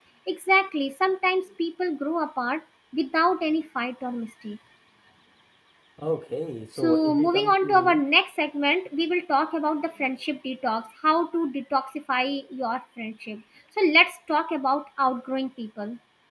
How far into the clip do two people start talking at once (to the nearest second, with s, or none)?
7 s